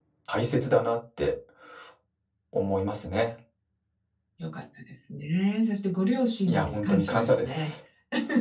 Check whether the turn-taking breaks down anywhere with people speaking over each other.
Yes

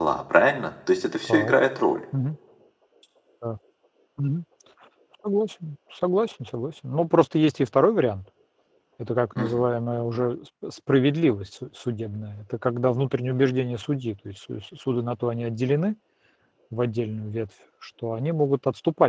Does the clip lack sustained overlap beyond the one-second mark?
Yes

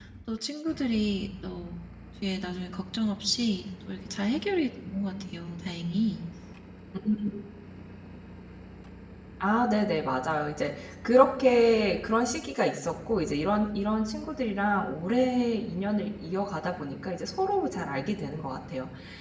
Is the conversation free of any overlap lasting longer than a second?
Yes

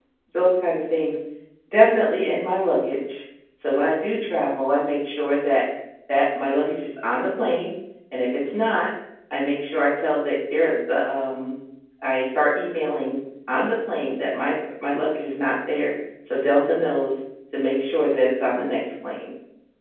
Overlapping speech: No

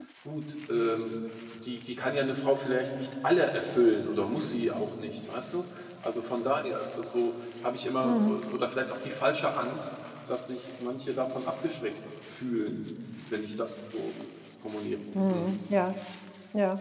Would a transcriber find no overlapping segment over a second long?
Yes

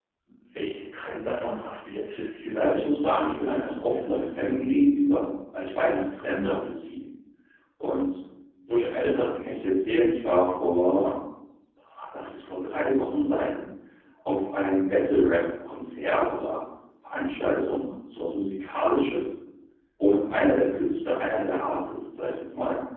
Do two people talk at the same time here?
Yes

